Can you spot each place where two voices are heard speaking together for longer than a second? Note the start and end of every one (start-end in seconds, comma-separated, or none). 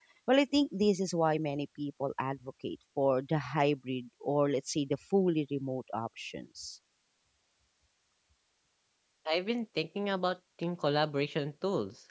none